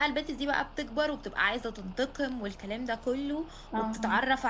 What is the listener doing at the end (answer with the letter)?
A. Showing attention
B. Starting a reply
A